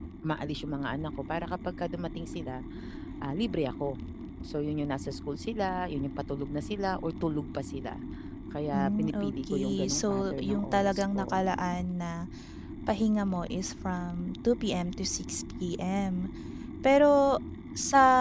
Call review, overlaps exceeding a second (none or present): present